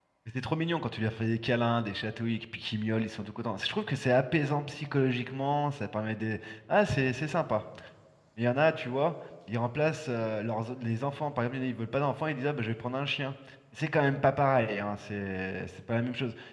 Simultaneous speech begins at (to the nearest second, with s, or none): none